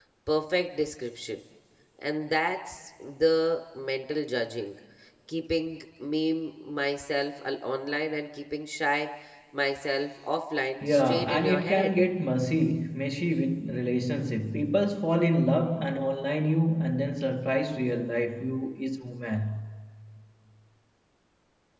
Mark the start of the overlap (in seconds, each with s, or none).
10.8 s